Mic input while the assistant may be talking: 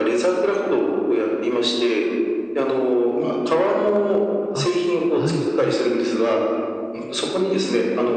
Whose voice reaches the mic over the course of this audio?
both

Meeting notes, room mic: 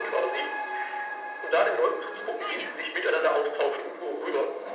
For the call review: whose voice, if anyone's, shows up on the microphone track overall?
both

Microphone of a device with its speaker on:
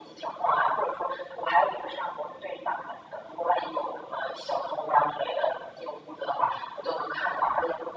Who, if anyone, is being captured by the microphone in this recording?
echo only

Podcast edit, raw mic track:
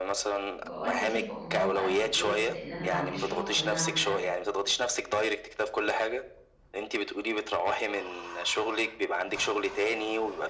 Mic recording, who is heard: both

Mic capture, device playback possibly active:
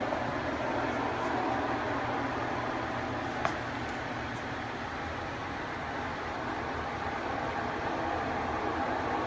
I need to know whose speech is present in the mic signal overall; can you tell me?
neither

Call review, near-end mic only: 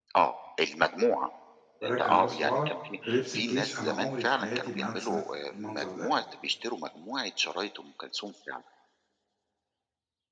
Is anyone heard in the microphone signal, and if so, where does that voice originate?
both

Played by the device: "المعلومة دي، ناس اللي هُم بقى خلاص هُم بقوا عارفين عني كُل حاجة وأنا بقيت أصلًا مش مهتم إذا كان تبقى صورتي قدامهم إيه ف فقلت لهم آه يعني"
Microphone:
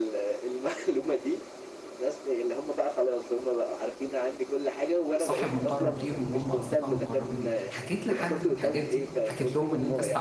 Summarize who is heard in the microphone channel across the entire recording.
both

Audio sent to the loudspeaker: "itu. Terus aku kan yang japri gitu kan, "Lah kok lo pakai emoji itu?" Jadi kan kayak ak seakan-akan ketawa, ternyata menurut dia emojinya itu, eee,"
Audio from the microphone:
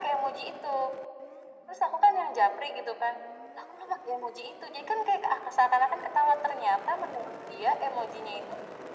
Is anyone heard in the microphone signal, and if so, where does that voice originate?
echo only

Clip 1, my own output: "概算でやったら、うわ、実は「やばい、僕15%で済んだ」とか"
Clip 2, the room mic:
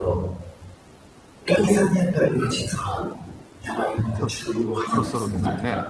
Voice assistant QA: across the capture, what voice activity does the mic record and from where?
both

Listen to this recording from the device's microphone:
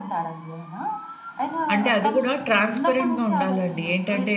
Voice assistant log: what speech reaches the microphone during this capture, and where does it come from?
both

